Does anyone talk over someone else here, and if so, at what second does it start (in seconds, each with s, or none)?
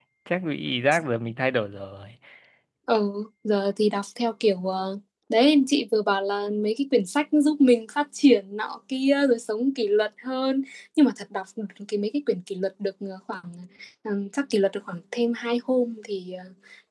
none